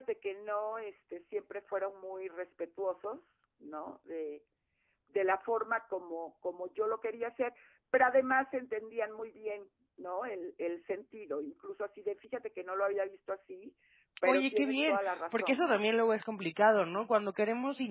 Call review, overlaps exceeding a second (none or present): present